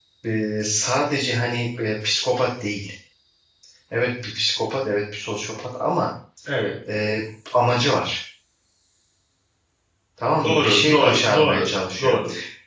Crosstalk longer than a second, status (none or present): present